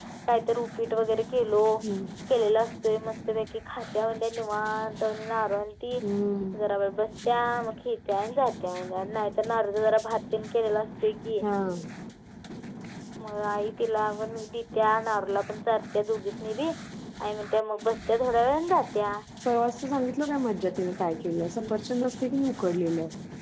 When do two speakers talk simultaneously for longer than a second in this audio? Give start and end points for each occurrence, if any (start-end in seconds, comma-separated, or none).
none